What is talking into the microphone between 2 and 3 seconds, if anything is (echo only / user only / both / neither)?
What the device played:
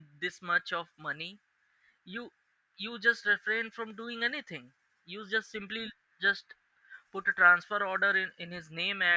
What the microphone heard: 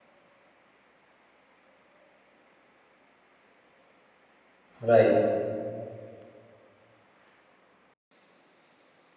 neither